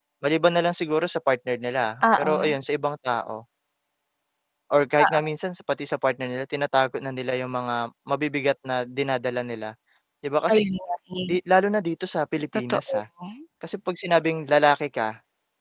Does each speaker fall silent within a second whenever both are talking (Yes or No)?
Yes